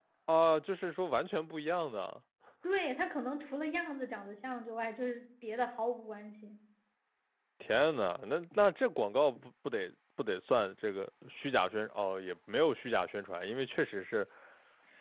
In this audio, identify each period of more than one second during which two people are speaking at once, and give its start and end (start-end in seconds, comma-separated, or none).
none